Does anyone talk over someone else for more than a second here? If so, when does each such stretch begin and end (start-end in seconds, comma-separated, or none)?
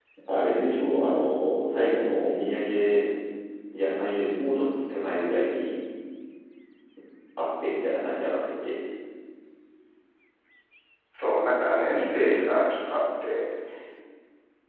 none